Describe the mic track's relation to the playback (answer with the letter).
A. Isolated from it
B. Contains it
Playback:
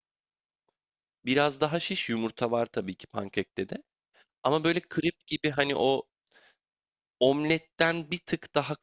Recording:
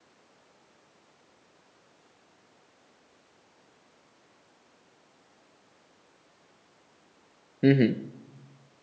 A